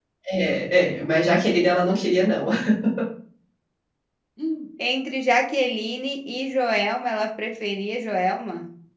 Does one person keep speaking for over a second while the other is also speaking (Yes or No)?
No